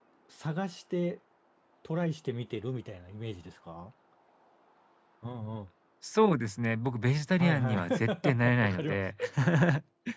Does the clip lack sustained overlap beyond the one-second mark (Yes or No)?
No